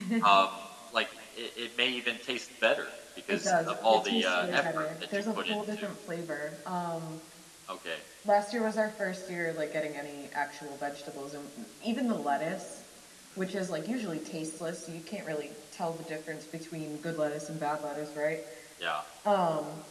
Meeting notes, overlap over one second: present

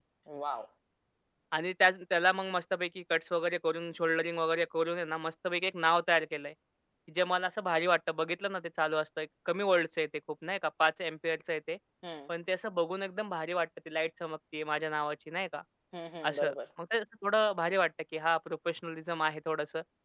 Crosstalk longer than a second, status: none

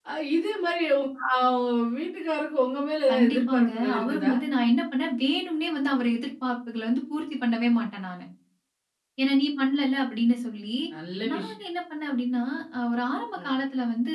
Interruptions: present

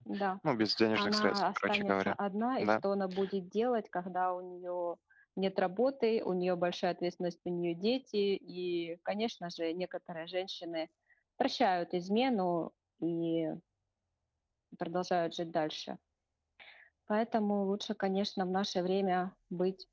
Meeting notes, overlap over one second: present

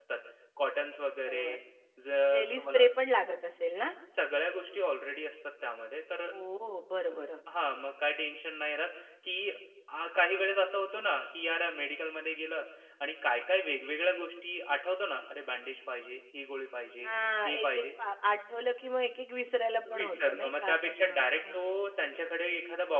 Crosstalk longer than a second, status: present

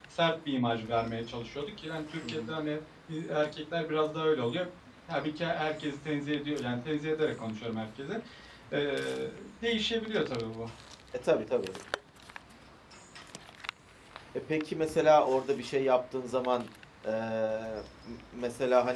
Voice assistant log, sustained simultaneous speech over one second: none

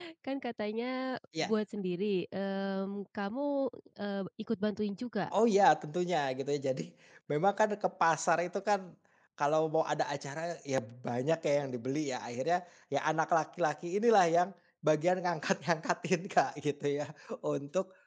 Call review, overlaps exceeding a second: none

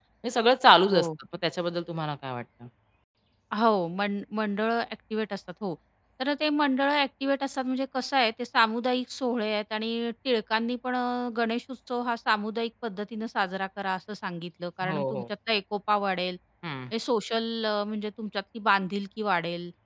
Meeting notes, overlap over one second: none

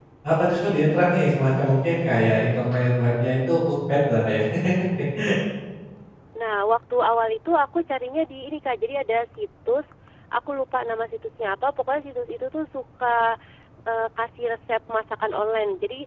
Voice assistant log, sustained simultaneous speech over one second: none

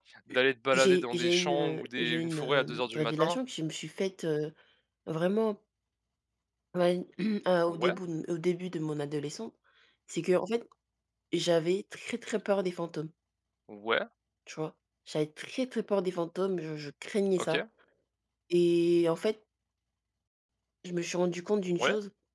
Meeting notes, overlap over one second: present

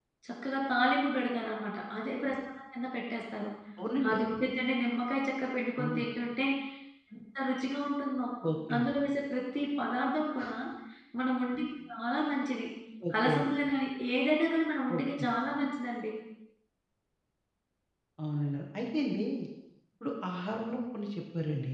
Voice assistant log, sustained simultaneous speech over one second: none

